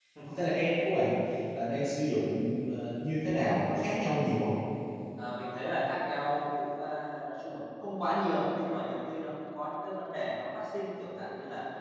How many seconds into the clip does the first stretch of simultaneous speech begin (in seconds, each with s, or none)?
none